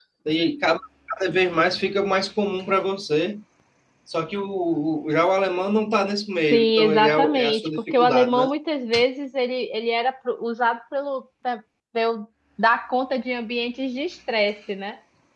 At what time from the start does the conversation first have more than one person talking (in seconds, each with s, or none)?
6.5 s